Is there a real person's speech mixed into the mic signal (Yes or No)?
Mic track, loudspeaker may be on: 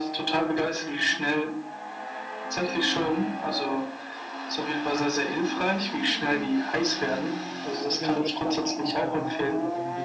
Yes